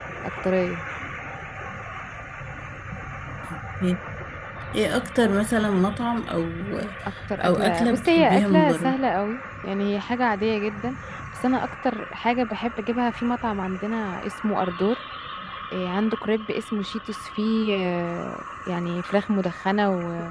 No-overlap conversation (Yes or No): No